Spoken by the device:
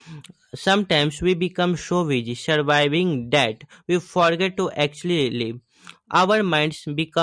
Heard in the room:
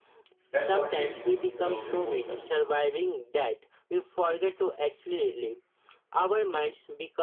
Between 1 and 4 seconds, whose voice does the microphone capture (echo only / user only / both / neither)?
both